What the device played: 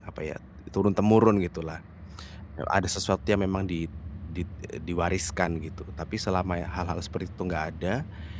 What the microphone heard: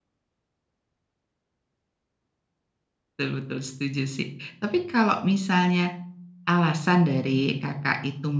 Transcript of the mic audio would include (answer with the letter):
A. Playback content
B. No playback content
B